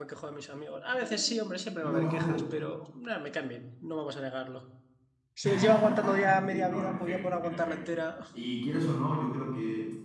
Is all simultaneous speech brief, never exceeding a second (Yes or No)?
No